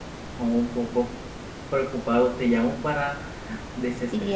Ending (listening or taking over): listening